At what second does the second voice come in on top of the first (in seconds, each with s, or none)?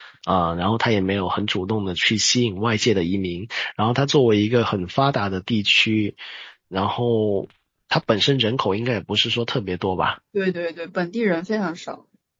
none